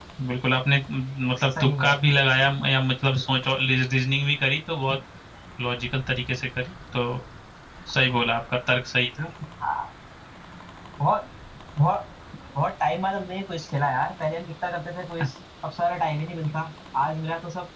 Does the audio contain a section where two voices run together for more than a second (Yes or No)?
No